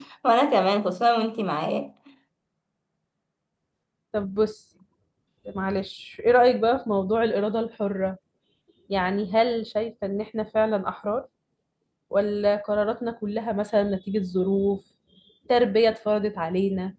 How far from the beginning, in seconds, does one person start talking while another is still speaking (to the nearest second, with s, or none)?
none